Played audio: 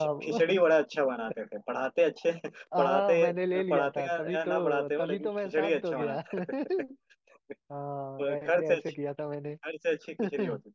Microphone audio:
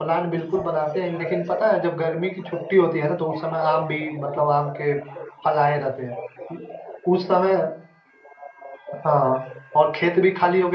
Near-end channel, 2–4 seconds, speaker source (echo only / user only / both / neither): both